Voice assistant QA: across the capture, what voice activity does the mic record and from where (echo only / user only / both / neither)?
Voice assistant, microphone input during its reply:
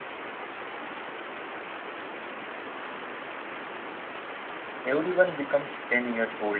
user only